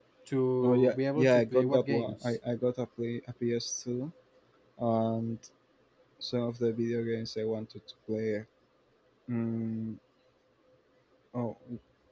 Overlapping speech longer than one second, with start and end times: 0.6-2.4

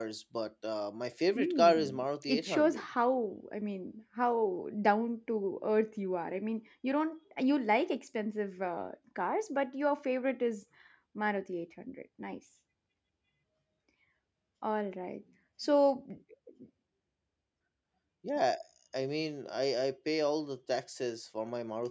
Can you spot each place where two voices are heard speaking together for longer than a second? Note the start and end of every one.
1.4-2.8

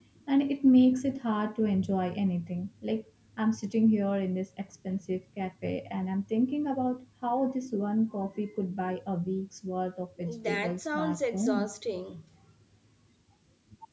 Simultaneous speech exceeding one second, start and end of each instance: 10.3-11.7

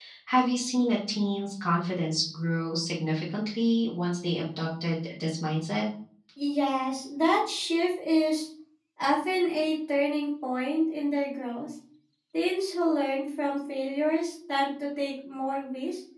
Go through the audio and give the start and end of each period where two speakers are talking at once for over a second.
none

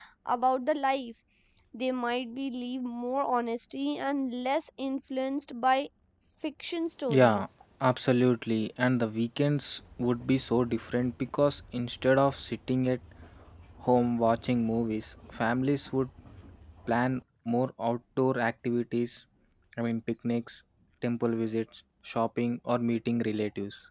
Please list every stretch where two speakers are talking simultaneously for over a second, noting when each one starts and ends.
none

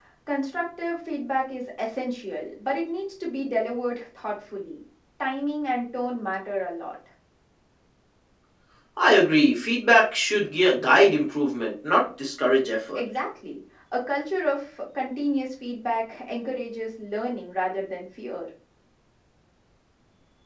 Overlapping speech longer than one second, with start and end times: none

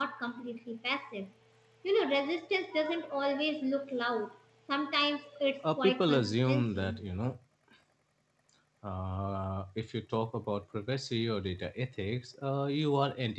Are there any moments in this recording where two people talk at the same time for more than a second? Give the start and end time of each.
5.6-7.0

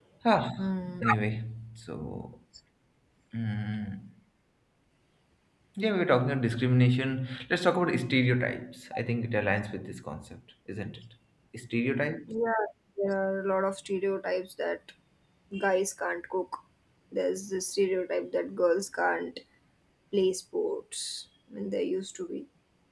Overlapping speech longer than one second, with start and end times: none

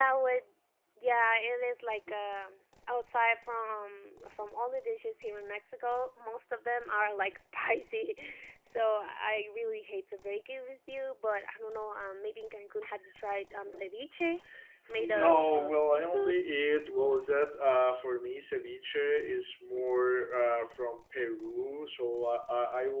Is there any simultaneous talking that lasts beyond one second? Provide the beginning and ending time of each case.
14.9-16.4

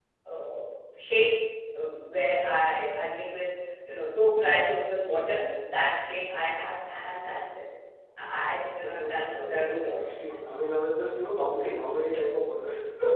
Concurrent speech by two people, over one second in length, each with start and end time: 8.8-10.0

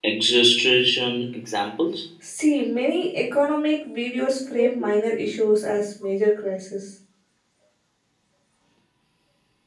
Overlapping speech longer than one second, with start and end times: none

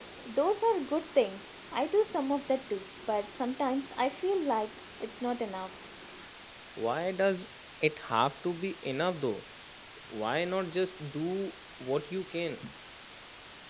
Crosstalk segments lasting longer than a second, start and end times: none

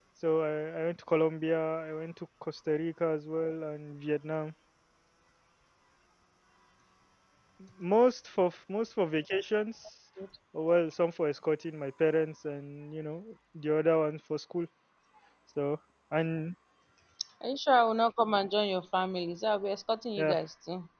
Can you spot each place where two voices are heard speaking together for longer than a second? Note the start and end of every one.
none

